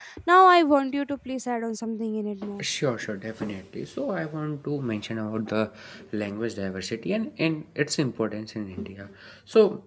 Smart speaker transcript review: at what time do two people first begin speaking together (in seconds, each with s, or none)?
none